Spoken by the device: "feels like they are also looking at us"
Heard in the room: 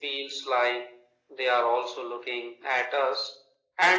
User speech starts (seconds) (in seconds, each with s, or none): none